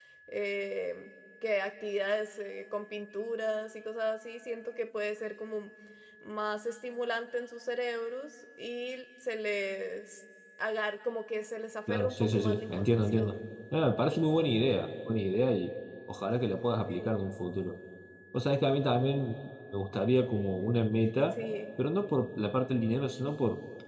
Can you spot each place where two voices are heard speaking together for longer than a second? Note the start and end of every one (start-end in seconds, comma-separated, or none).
11.9-13.4